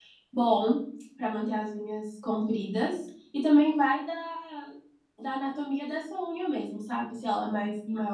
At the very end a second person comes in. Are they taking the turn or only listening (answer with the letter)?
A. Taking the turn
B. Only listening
B